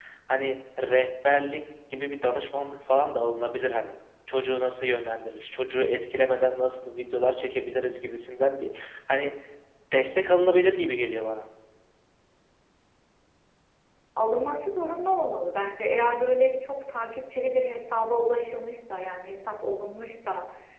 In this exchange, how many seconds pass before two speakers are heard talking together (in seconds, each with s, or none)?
none